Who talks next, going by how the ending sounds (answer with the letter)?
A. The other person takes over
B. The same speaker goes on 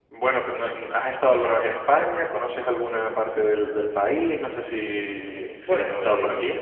A